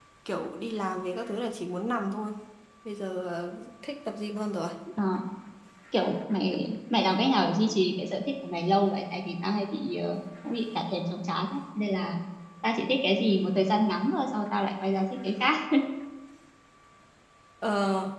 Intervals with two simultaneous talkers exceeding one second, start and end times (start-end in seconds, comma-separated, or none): none